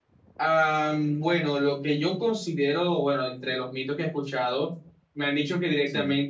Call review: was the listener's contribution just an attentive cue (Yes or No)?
Yes